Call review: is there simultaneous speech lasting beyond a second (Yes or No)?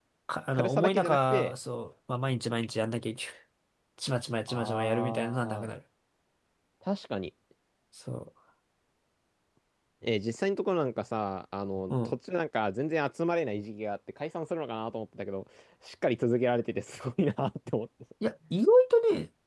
Yes